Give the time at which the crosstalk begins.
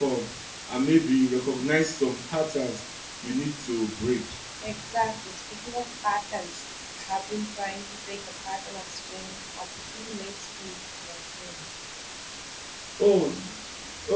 none

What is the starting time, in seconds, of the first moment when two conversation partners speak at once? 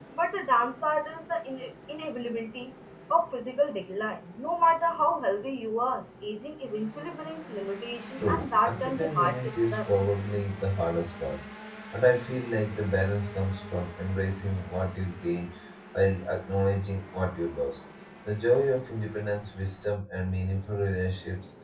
8.2 s

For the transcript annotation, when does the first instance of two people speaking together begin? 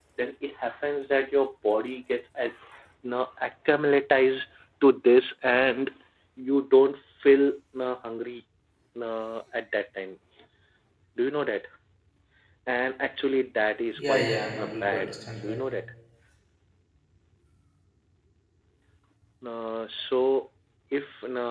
14.0 s

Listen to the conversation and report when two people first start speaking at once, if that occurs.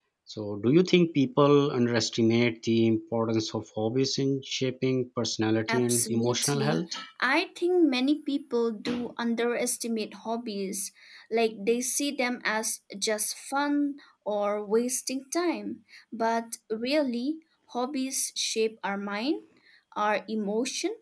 5.7 s

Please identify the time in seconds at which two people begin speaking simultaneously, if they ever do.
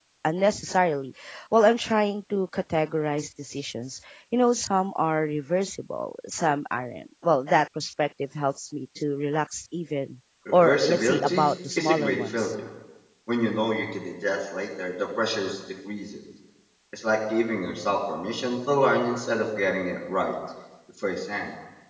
10.4 s

